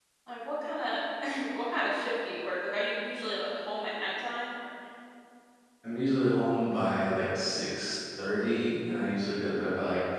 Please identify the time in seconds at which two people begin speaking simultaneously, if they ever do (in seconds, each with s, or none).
none